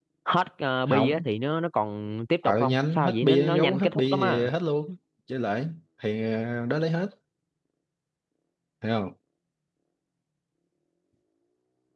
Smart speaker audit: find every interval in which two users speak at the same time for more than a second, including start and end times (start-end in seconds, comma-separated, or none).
2.4-4.5